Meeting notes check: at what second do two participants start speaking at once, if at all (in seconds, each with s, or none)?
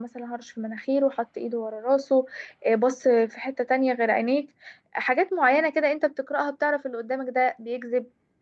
none